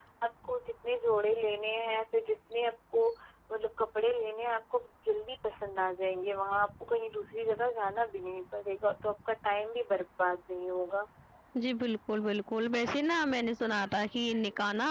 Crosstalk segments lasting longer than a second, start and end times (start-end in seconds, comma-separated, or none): none